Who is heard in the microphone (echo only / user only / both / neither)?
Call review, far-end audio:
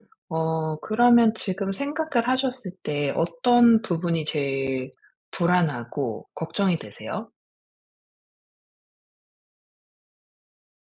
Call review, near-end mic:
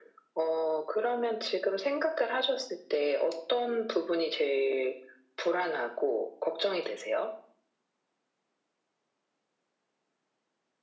echo only